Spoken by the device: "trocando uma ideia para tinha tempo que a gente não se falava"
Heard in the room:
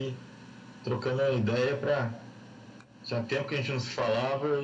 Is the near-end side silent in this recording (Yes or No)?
Yes